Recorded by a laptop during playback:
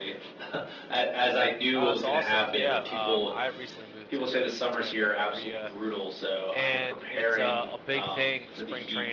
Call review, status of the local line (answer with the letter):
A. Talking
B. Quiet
A